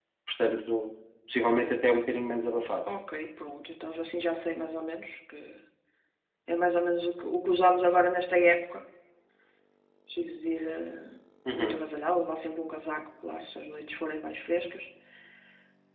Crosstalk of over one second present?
No

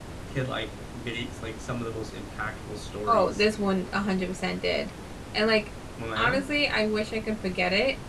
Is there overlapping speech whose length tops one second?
No

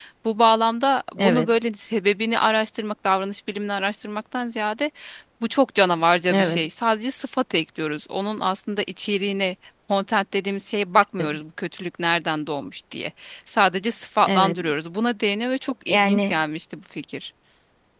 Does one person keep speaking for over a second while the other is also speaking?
No

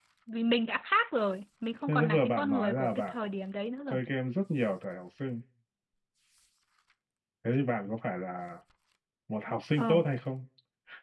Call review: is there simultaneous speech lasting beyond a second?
Yes, from 1.9 s

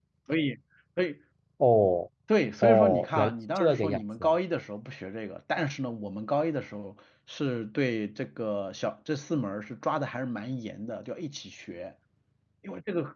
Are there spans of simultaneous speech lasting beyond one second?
Yes, from 2.6 s

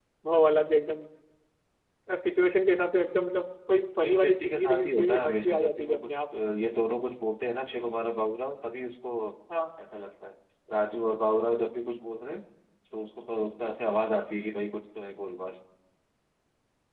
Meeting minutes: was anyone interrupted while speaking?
Yes, from 3.9 s

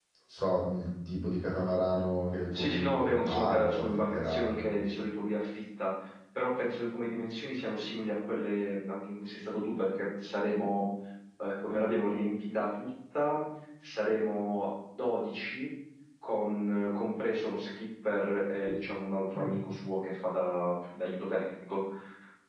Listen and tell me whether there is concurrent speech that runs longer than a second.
Yes, from 2.5 s

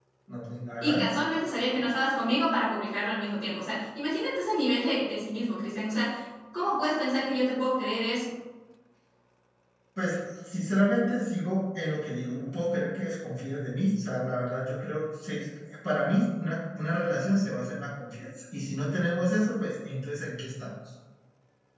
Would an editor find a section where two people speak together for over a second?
No

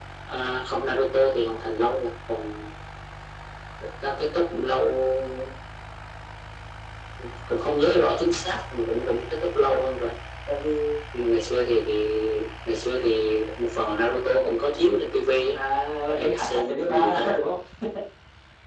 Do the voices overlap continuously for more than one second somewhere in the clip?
Yes, from 16.2 s

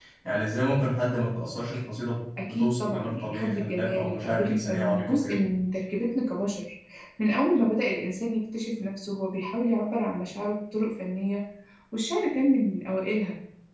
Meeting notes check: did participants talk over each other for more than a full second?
Yes, from 2.4 s

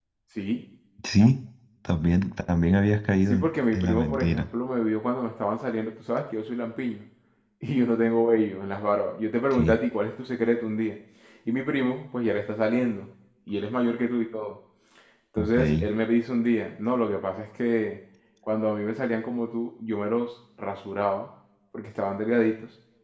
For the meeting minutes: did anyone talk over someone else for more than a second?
Yes, from 3.2 s

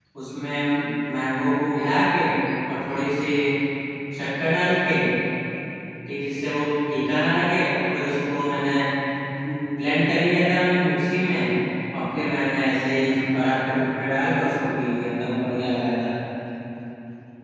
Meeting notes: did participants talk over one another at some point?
No

